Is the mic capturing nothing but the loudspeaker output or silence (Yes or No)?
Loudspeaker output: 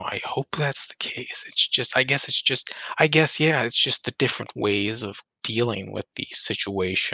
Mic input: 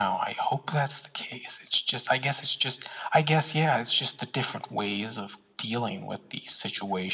Yes